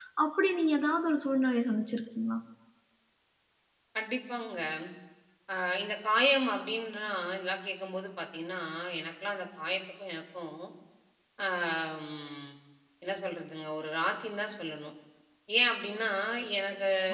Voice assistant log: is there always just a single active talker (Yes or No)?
Yes